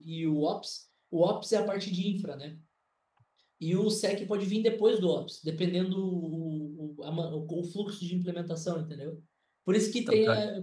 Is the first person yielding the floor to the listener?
No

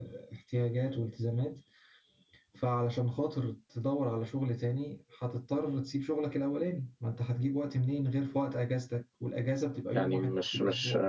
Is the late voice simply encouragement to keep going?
No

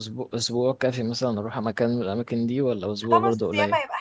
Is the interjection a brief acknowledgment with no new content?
No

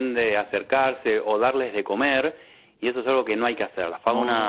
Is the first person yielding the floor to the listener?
No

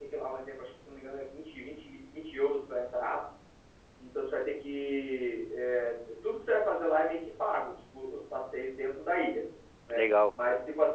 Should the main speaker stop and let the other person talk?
No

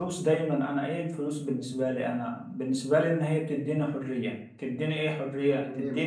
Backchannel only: Yes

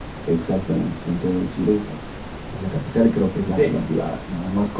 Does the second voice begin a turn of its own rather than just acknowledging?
No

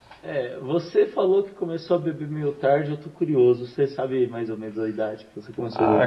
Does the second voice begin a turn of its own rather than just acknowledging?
Yes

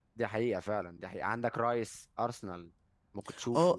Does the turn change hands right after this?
Yes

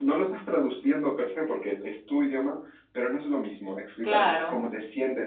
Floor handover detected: No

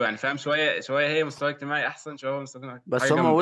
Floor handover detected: Yes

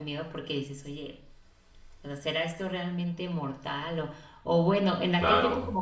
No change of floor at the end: Yes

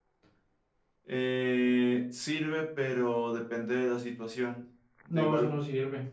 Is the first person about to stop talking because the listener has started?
Yes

